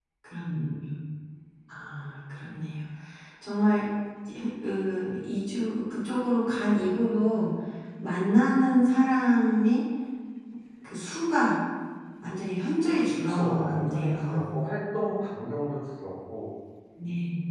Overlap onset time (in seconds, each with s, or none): 13.0 s